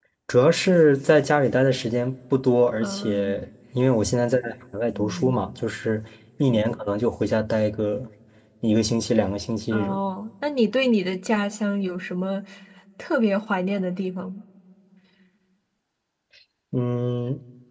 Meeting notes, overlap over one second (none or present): none